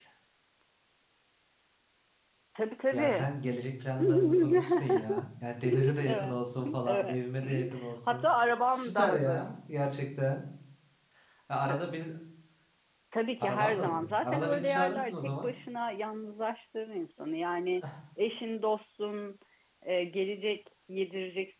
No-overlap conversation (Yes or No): No